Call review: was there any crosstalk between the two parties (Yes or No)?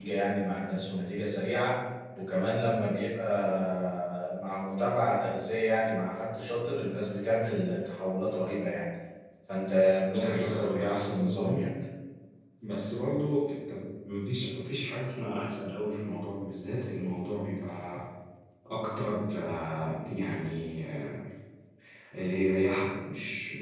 Yes